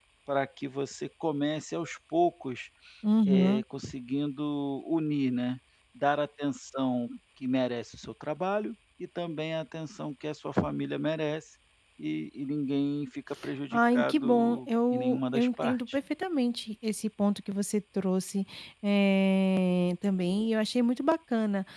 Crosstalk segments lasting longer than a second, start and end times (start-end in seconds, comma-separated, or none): 13.7-15.8